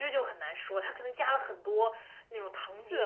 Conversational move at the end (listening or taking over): taking over